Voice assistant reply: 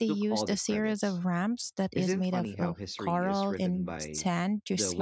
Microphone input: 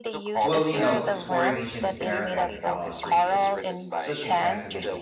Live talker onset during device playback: 0 s

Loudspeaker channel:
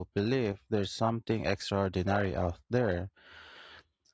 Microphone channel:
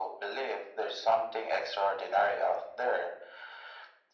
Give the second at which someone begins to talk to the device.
none

